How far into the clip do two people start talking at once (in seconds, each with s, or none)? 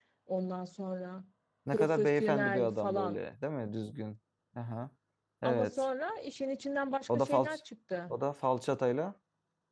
1.7 s